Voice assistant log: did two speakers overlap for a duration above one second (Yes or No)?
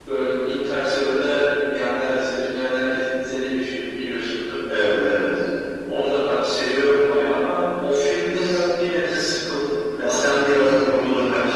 No